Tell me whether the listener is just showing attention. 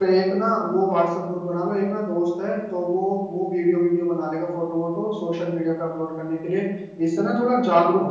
Yes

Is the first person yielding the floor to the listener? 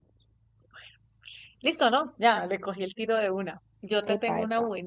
No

